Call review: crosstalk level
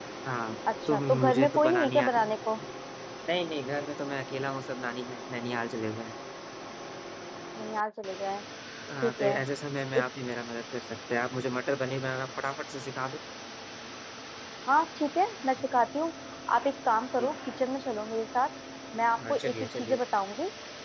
present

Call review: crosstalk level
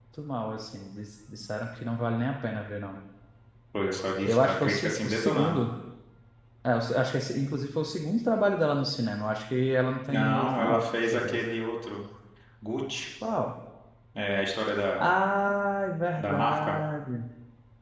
present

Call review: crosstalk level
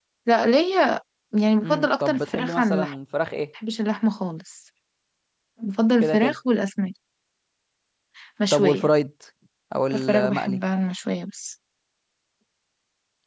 present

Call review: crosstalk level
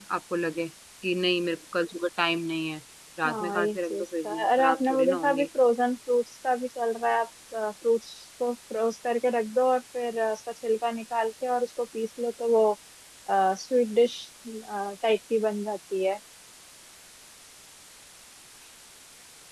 present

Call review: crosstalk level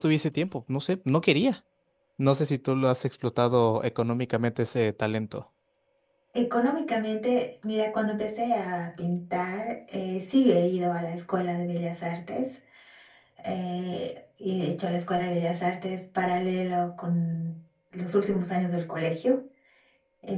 none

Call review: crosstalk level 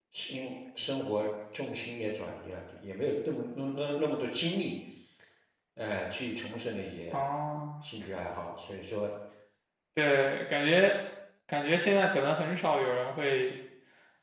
none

